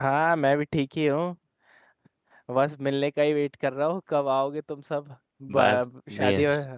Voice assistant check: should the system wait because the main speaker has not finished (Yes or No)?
No